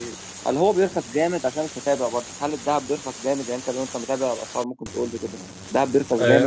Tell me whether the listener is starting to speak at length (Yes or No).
Yes